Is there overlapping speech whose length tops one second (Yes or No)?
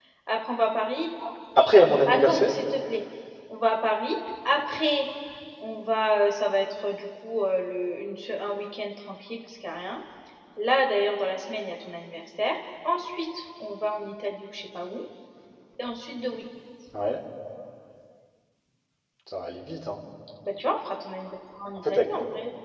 No